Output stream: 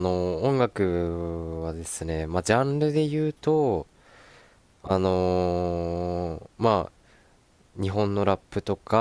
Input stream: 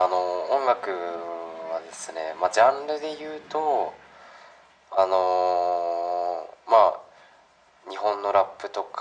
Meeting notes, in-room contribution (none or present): none